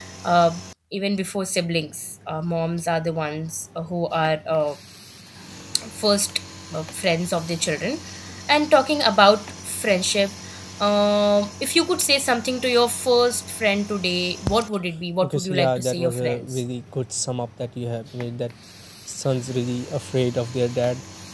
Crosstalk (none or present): present